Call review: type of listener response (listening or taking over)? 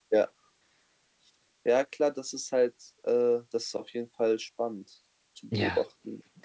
taking over